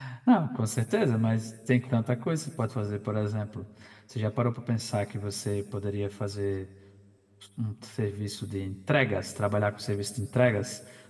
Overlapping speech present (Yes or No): No